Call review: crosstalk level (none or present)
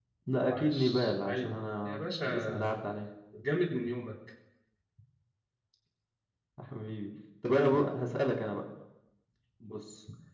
present